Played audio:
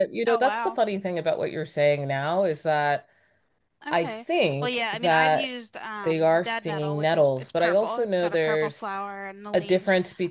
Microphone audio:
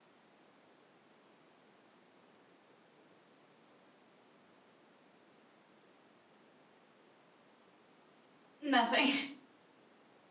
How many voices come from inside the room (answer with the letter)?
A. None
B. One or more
B